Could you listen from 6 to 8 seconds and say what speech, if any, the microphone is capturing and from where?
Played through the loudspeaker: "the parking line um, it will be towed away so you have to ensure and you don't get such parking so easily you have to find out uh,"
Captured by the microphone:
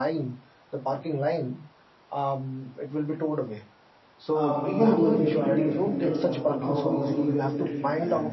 both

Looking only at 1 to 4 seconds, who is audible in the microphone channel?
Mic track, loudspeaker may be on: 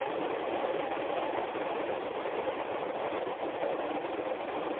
neither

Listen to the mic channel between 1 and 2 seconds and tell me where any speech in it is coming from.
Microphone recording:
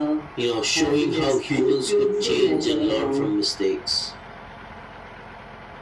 echo only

